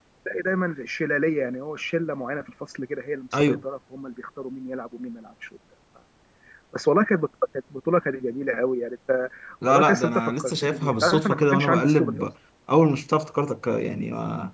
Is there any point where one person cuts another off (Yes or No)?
Yes